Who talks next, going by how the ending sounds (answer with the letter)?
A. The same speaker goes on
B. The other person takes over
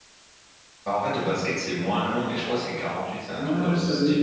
B